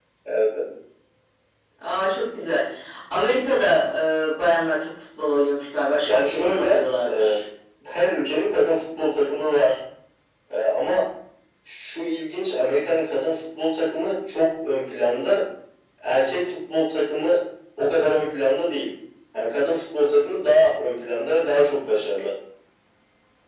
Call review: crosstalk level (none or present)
present